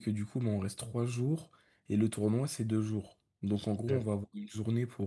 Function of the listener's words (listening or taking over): listening